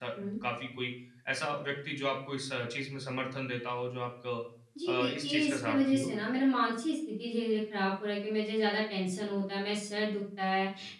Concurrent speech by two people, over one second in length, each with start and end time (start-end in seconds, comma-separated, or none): 4.9-6.1